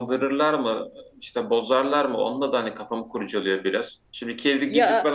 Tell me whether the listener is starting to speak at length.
No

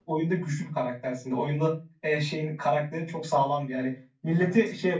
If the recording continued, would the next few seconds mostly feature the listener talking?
No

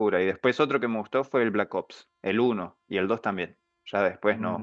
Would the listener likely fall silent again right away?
No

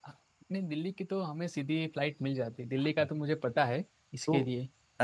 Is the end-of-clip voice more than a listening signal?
Yes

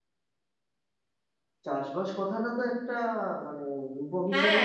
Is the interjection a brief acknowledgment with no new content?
No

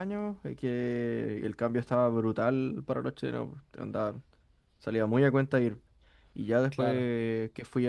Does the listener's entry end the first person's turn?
No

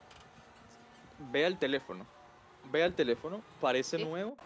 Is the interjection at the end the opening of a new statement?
No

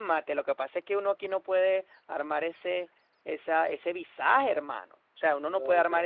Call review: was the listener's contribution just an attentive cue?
Yes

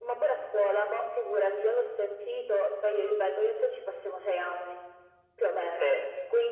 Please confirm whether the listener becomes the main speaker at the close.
No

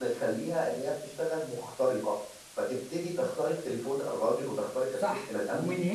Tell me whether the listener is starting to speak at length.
Yes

